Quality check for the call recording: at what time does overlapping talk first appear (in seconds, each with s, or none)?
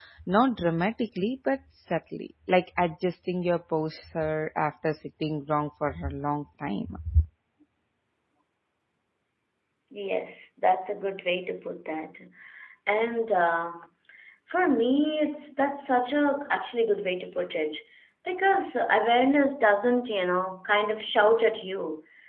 none